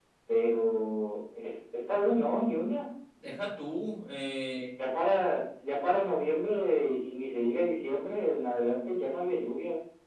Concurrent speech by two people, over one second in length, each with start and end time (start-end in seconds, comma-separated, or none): none